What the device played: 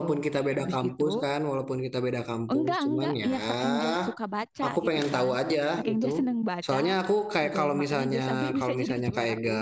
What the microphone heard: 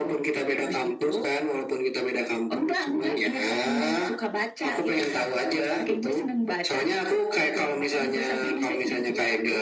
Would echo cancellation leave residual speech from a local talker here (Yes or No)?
No